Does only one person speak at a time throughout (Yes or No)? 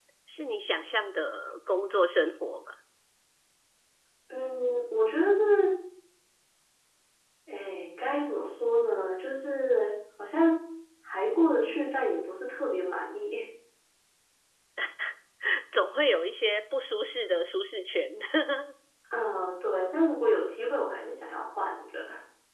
Yes